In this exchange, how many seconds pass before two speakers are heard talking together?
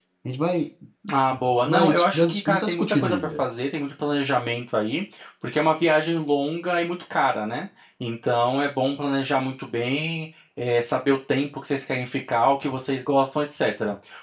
1.6 s

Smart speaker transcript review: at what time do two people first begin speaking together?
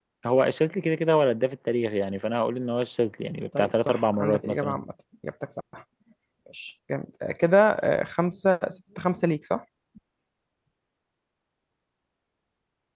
3.5 s

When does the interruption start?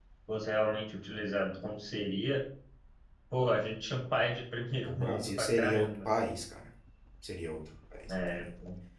4.8 s

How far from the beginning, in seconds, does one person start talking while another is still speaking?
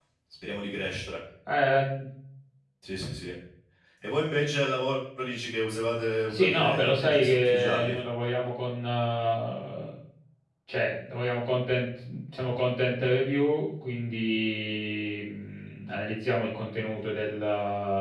6.3 s

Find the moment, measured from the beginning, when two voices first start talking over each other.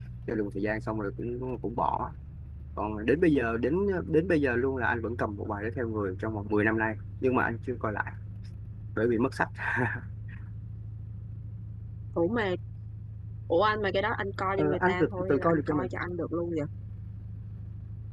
14.6 s

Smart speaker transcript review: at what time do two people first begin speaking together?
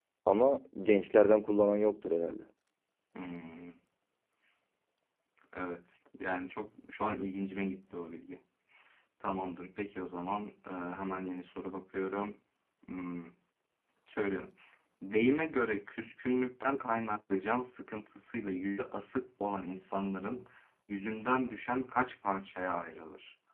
none

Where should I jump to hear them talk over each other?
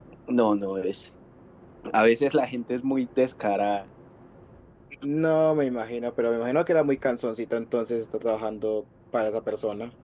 none

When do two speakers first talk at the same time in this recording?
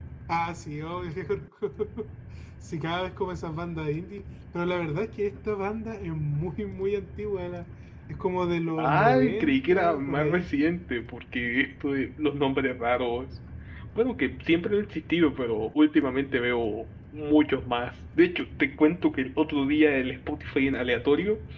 8.8 s

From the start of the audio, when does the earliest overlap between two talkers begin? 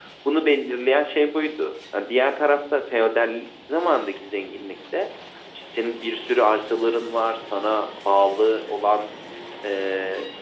none

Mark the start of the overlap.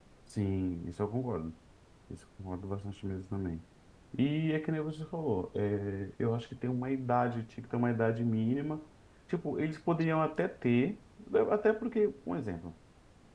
none

